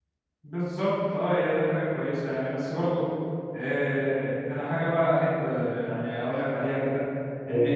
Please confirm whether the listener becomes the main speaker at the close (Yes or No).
No